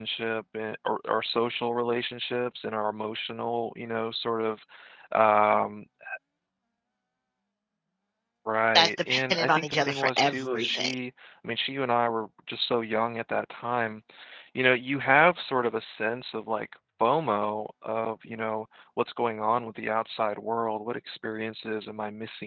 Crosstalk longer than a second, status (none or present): present